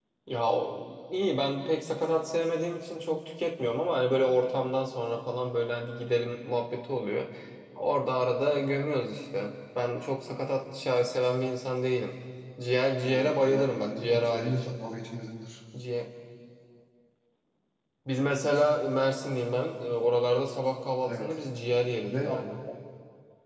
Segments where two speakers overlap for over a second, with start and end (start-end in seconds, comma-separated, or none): 13.0-14.5